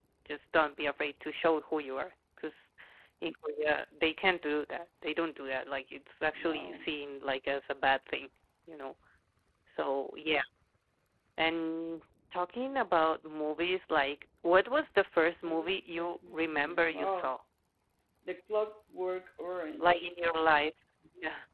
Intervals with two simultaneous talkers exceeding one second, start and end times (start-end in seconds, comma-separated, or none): 15.4-17.4